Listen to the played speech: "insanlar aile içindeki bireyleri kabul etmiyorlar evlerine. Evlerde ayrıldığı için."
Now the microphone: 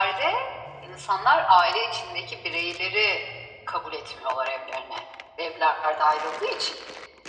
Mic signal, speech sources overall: echo only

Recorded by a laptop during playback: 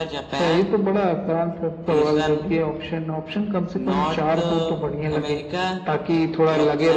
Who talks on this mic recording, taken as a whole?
echo only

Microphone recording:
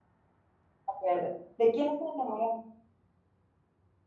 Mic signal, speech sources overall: user only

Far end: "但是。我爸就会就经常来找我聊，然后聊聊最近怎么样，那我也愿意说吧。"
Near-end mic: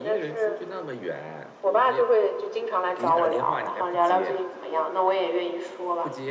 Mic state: both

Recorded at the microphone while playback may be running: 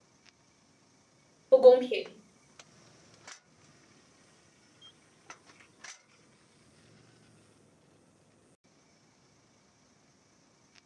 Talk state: user only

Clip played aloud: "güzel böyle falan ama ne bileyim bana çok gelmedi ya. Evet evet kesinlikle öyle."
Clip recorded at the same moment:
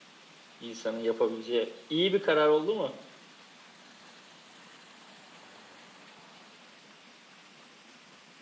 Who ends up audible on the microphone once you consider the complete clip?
user only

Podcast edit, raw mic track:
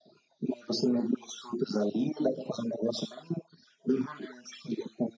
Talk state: echo only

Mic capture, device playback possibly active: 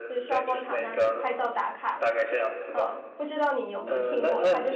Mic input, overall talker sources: both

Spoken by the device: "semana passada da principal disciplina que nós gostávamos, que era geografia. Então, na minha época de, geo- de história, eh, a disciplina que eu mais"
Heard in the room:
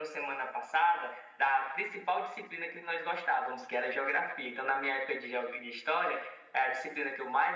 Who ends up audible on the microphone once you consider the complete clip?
echo only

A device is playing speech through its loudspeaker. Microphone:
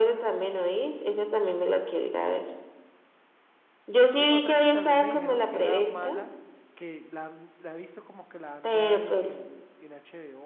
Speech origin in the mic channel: both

